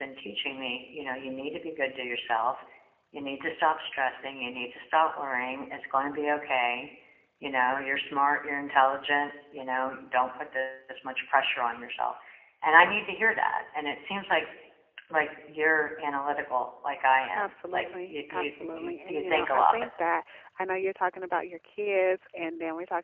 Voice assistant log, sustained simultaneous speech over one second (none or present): present